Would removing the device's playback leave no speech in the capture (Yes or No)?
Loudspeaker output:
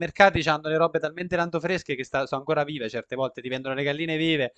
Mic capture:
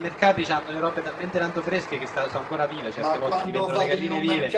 No